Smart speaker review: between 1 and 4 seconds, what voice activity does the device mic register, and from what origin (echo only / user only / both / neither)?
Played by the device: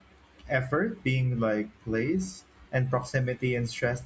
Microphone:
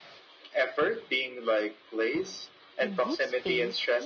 both